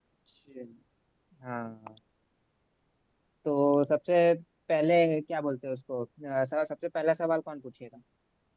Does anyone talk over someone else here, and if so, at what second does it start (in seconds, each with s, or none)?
none